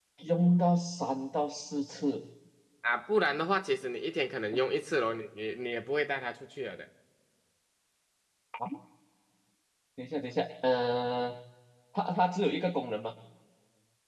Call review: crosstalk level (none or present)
none